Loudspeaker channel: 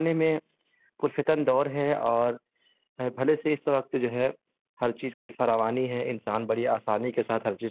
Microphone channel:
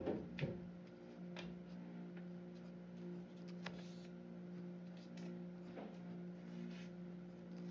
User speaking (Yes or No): No